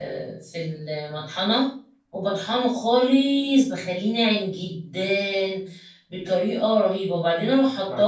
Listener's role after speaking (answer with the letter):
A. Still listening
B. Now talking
A